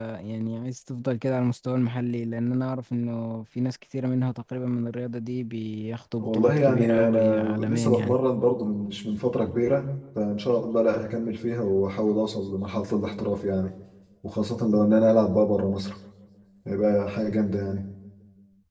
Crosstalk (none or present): present